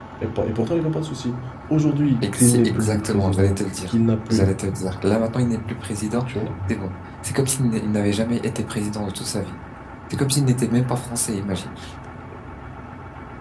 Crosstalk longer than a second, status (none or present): present